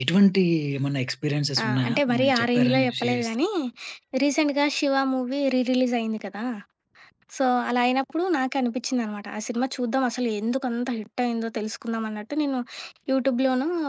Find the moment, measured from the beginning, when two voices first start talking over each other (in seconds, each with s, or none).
1.6 s